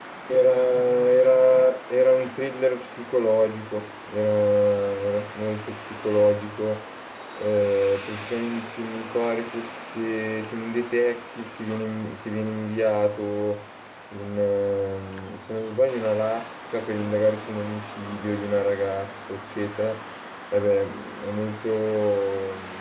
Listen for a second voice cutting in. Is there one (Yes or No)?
No